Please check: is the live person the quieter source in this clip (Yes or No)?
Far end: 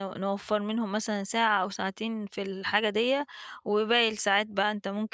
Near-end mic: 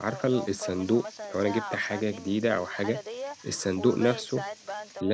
No